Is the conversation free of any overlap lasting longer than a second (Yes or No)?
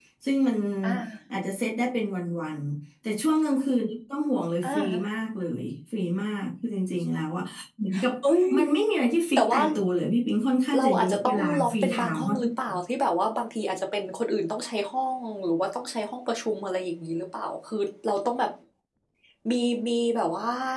No